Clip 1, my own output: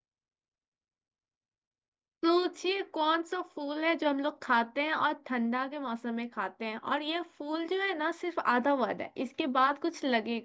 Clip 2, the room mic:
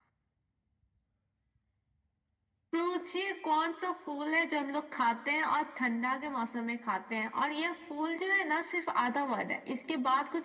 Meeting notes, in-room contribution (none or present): none